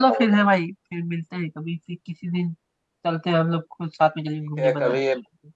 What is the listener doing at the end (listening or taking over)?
taking over